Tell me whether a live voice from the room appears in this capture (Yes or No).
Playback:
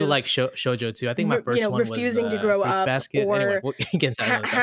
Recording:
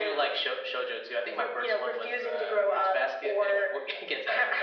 No